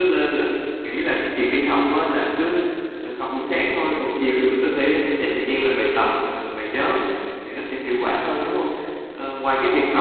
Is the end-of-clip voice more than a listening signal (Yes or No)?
No